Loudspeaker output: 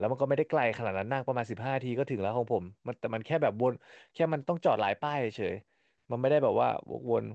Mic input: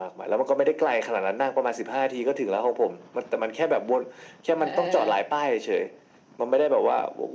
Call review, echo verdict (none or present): present